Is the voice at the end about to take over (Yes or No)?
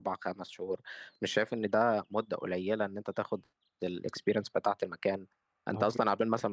No